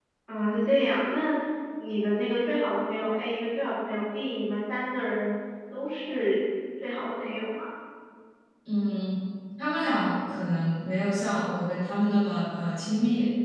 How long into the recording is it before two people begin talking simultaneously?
none

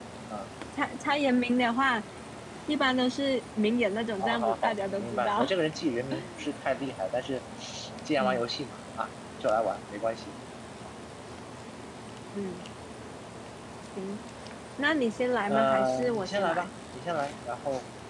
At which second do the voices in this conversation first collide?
4.2 s

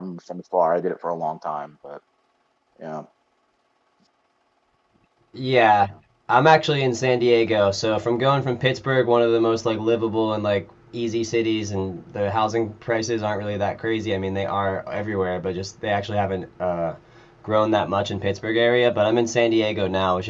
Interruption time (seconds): none

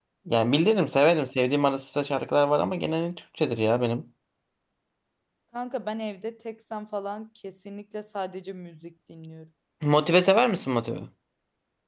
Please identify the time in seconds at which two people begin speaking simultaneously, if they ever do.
none

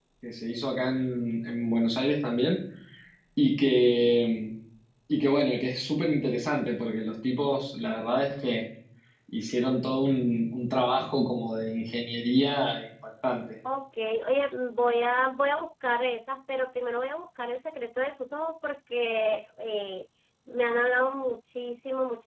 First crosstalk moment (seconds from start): none

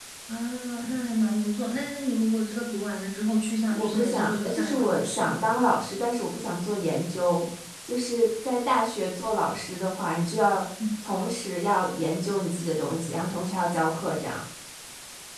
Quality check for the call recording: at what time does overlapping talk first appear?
3.7 s

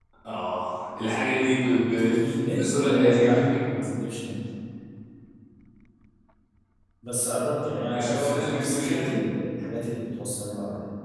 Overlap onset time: 2.0 s

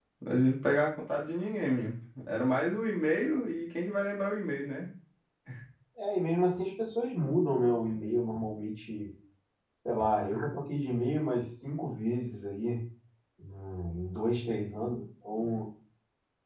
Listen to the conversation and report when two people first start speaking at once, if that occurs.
none

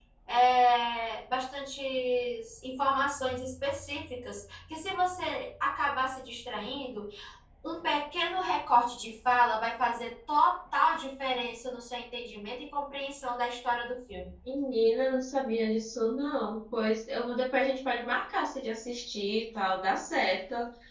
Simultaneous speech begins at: none

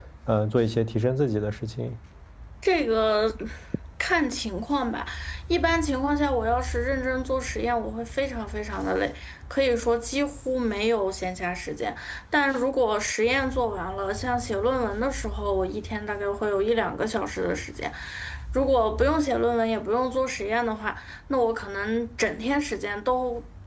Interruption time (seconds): none

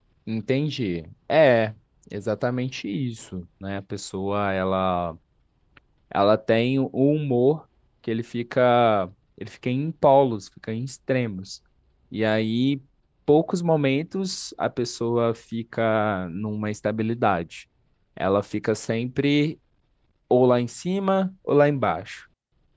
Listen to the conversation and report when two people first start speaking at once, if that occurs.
none

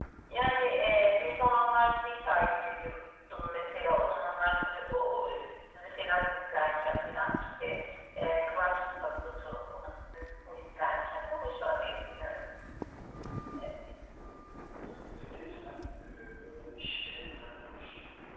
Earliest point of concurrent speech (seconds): none

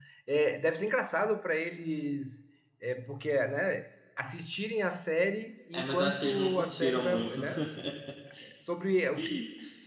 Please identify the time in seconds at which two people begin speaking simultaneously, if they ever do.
5.7 s

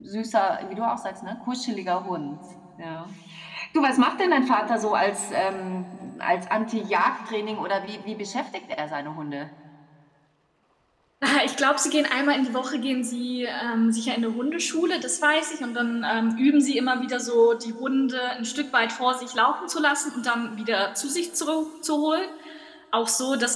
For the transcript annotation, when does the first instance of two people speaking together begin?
none

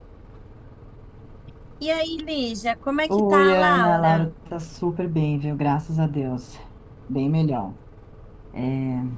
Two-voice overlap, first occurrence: 3.1 s

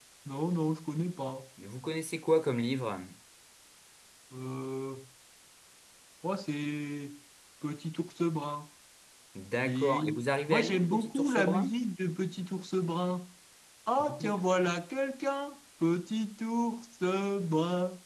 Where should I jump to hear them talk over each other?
9.6 s

